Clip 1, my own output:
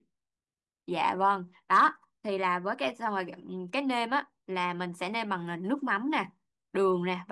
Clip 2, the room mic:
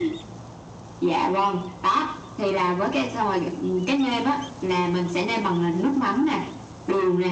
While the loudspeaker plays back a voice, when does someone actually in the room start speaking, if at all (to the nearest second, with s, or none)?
none